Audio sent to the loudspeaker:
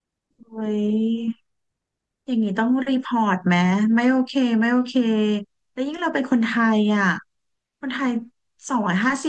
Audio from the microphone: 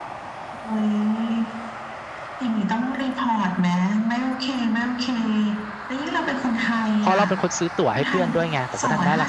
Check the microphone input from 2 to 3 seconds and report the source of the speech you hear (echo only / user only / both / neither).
echo only